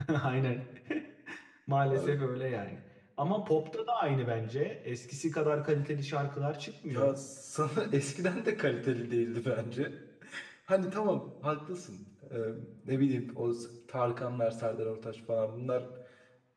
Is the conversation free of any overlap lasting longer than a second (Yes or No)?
Yes